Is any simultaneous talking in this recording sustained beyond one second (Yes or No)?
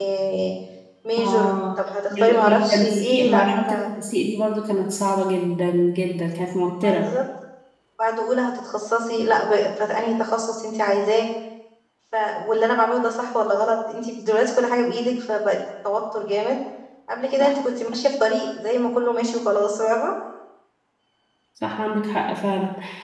Yes